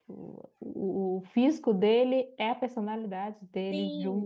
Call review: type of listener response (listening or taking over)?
taking over